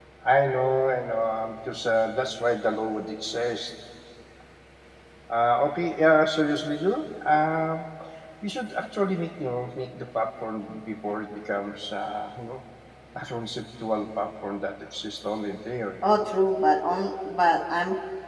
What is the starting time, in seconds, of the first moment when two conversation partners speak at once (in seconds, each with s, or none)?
none